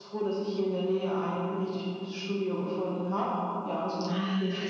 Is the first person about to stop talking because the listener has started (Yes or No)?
Yes